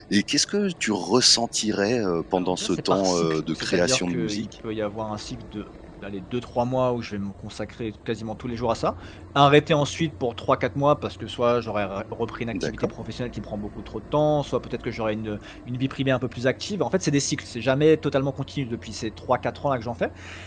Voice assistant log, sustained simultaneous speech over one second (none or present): present